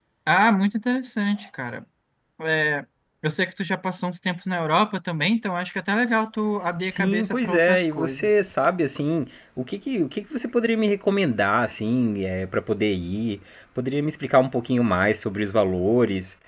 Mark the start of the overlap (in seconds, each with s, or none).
6.9 s